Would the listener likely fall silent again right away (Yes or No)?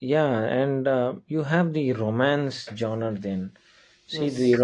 Yes